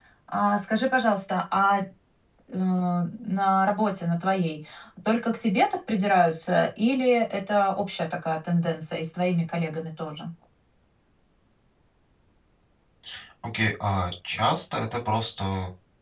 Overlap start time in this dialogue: none

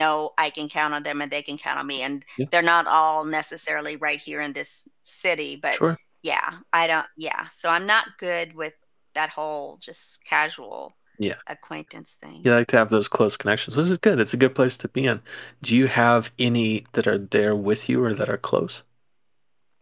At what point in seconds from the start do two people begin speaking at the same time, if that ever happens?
none

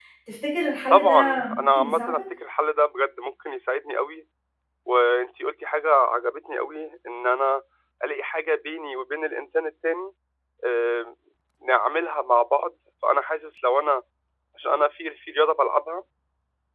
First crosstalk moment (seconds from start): 0.9 s

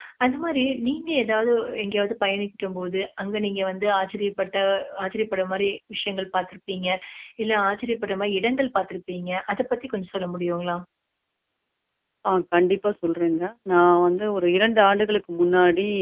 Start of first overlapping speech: none

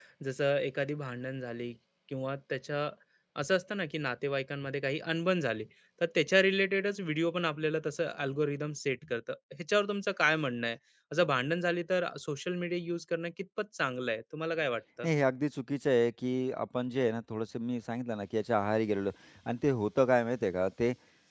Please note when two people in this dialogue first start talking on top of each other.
none

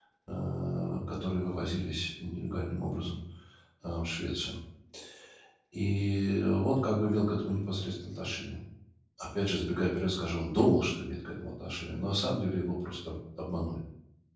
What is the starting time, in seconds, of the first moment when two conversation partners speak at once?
none

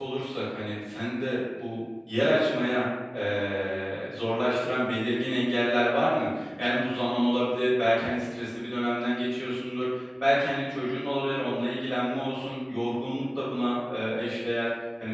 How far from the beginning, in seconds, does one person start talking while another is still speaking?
none

